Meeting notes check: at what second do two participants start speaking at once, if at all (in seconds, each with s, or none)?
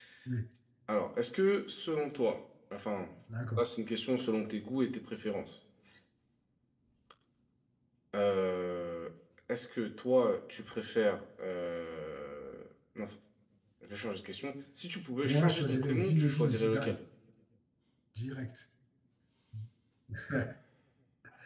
15.2 s